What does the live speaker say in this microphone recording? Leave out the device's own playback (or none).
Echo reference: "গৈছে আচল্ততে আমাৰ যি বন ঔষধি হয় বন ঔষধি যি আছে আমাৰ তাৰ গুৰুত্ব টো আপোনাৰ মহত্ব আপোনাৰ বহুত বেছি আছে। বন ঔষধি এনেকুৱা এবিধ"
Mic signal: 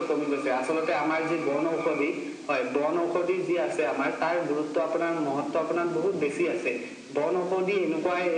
none